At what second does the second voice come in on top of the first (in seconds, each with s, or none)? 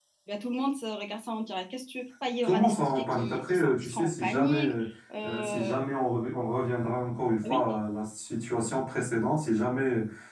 2.4 s